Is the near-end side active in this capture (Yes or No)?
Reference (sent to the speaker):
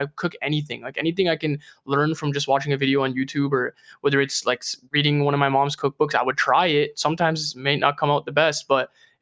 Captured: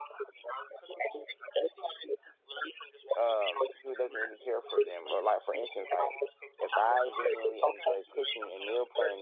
Yes